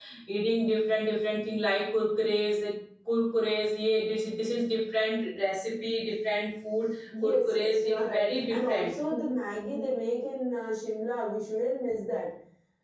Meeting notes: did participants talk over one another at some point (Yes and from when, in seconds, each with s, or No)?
Yes, from 7.2 s